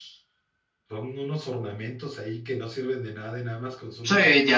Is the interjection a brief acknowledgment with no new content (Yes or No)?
No